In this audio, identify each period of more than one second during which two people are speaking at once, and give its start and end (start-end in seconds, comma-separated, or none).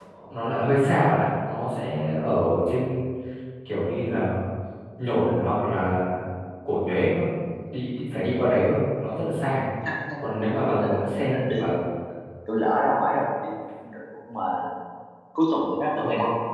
10.4-11.7